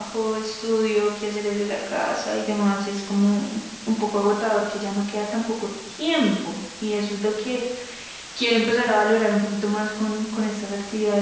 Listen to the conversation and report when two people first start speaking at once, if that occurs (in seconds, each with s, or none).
none